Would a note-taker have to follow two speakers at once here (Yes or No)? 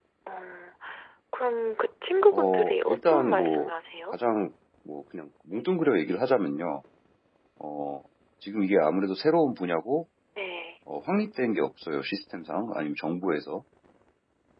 Yes